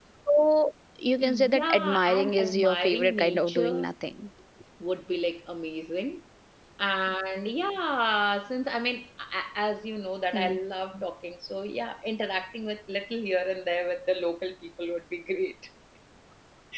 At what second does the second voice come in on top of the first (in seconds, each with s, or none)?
1.2 s